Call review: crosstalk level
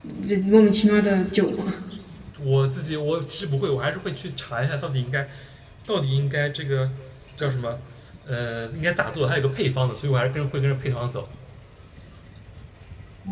none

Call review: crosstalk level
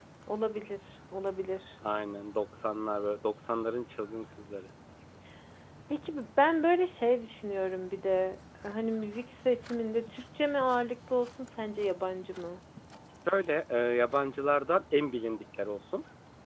none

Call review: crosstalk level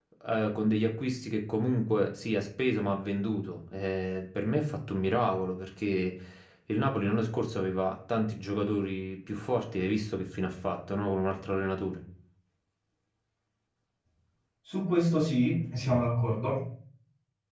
none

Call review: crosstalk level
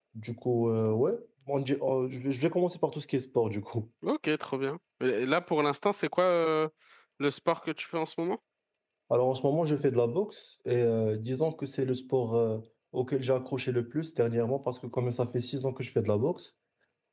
none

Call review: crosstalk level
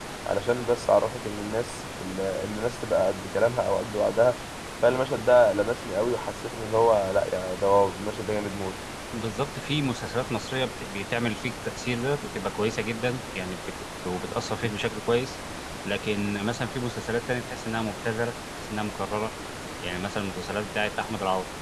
none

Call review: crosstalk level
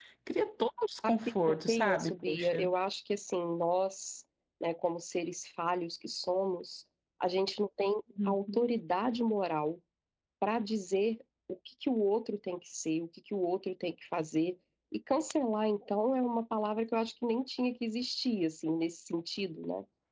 present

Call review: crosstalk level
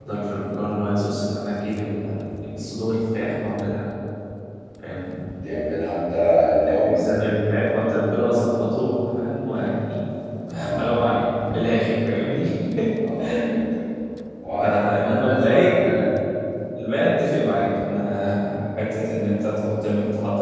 present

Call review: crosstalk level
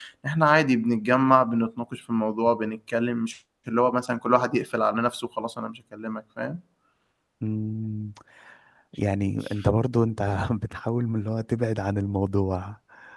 none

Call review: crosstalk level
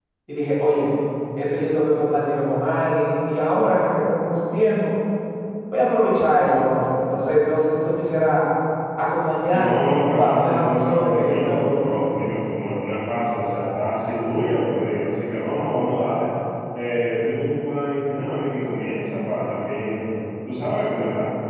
present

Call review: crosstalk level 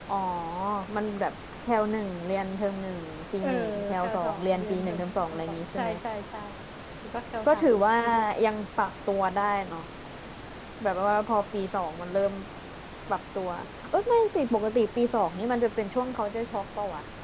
present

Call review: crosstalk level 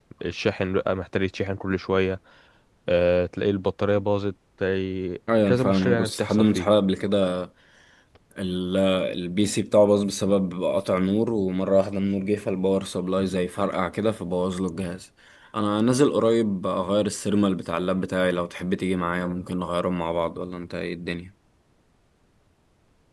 present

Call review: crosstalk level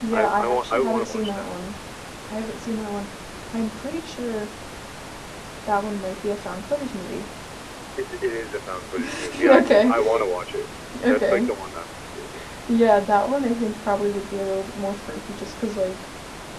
present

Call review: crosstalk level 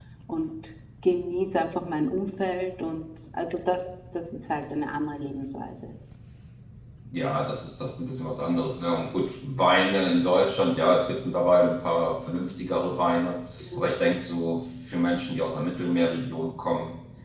none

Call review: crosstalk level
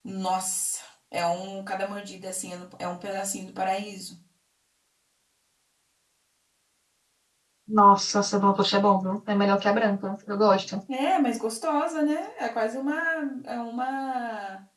none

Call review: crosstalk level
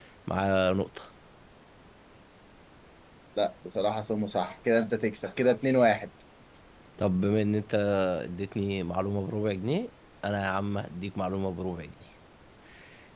none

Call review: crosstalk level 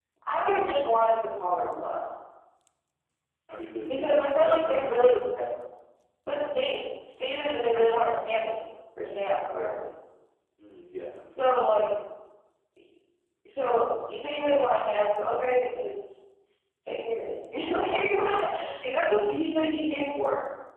present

